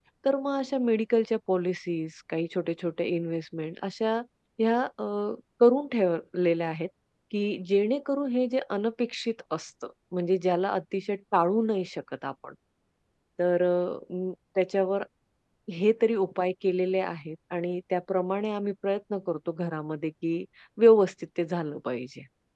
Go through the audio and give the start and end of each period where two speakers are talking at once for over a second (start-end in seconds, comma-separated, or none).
none